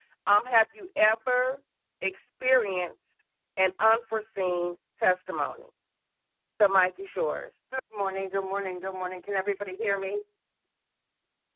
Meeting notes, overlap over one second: none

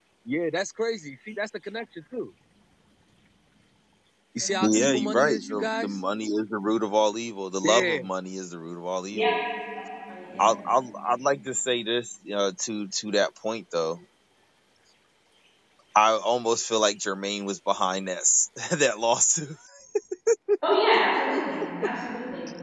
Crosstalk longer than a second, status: present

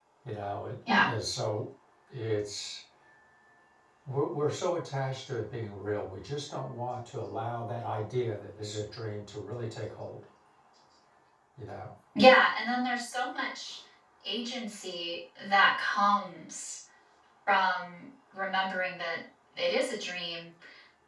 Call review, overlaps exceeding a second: none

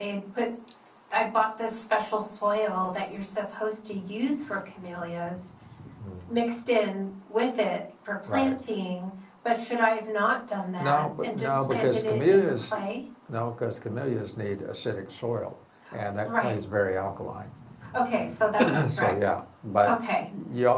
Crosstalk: present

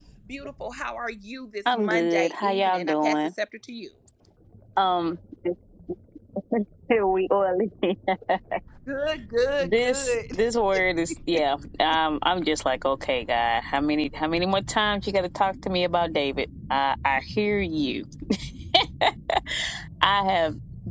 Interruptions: present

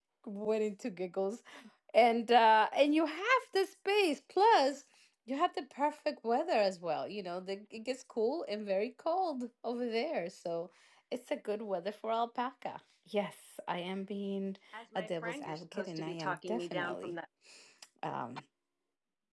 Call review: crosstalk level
present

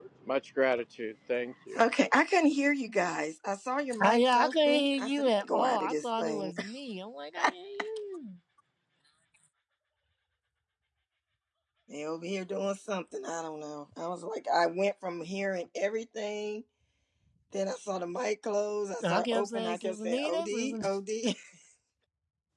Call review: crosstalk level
present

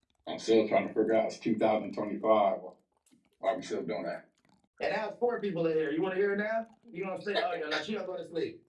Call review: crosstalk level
none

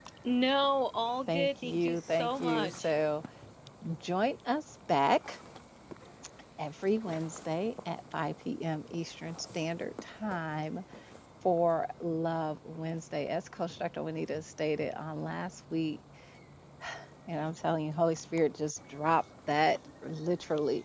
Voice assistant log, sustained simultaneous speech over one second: present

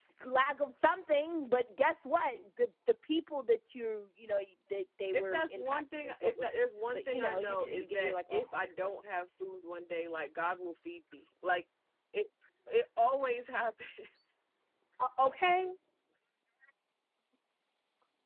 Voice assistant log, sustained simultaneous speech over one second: present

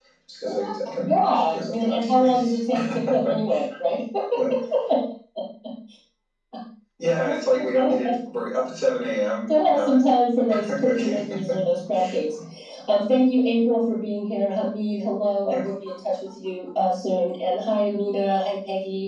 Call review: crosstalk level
present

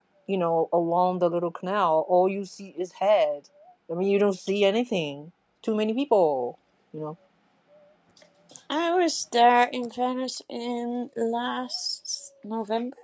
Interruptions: none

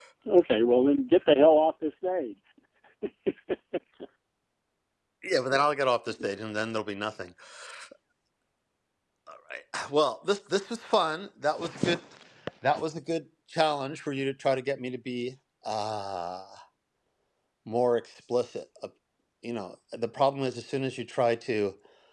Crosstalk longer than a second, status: none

